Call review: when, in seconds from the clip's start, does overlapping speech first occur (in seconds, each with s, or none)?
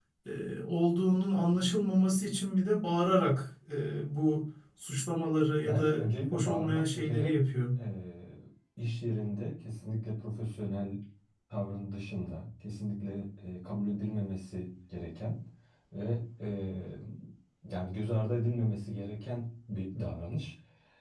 5.6 s